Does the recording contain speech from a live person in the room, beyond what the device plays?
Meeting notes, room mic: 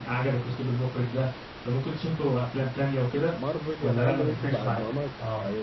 Yes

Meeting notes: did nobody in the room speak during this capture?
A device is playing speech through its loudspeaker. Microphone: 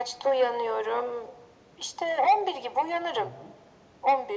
No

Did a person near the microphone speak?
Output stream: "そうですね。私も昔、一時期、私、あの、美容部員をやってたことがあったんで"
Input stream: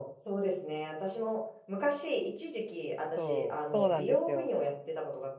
Yes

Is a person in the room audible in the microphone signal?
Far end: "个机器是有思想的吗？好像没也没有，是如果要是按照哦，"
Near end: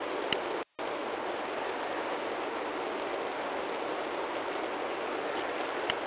No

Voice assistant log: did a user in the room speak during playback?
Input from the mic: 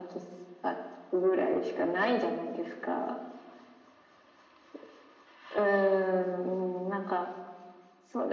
No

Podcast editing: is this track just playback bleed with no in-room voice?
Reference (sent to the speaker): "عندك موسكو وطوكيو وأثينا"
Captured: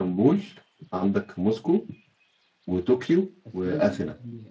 No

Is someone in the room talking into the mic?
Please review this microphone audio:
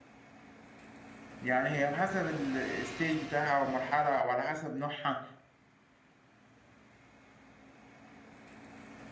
Yes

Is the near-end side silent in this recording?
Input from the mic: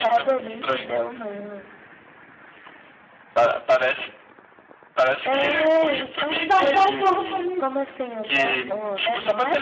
No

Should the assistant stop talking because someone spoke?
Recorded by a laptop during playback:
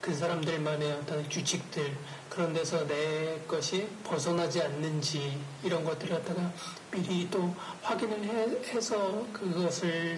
No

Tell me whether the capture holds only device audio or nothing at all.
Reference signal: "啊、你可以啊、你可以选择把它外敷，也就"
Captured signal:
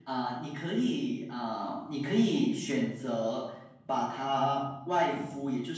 Yes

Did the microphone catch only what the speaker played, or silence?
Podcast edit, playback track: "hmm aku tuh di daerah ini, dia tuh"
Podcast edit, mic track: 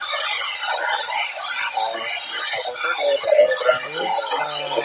No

